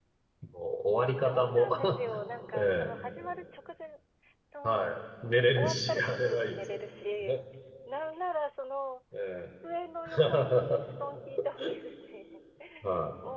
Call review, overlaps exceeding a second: present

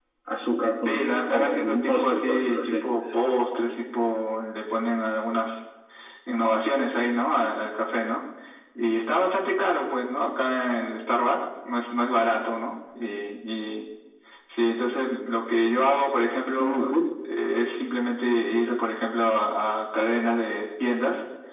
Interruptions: present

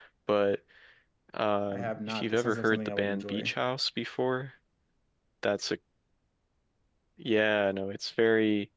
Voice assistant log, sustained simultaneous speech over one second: present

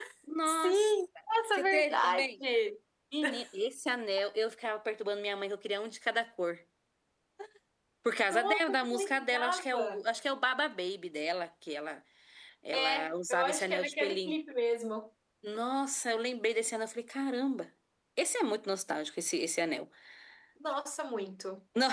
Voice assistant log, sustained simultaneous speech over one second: present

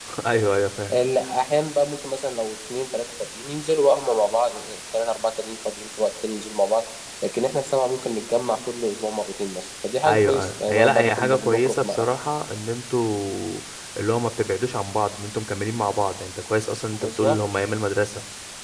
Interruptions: present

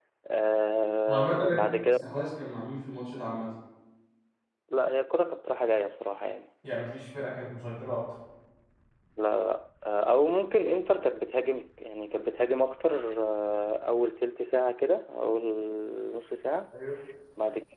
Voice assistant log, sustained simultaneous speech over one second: none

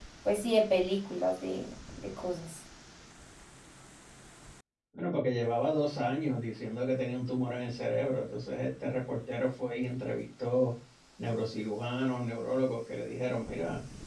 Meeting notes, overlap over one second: none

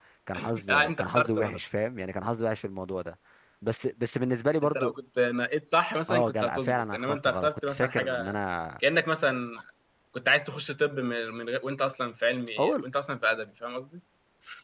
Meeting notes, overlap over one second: present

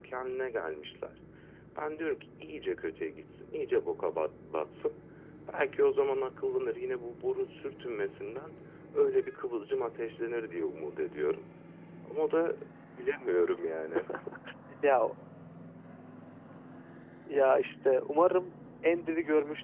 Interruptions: none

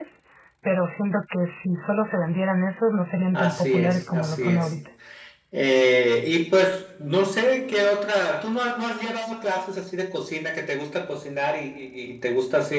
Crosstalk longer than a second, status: present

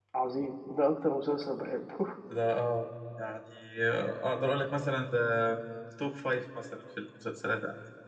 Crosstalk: none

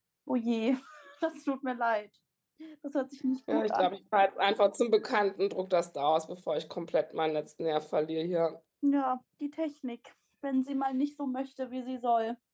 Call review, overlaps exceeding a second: none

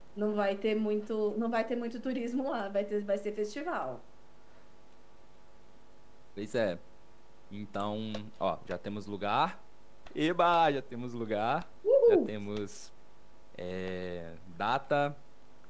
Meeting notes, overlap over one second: none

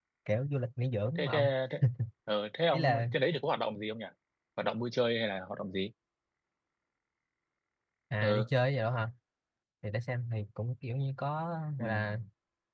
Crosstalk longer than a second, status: none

